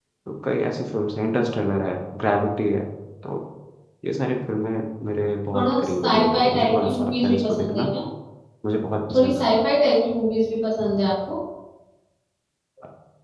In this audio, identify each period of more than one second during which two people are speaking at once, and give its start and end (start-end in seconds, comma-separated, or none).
5.5-7.8